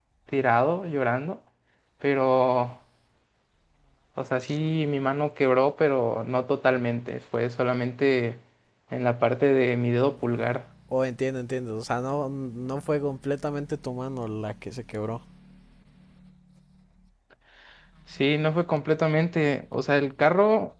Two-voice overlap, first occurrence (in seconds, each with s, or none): none